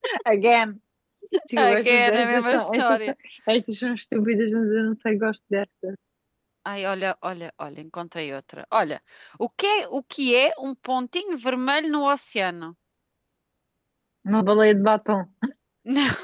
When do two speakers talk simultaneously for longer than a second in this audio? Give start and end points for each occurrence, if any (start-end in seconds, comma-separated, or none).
1.6-3.0